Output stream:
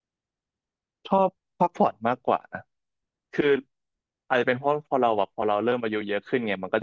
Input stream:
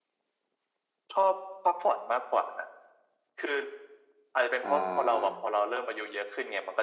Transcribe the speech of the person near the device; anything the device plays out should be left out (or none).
อ่า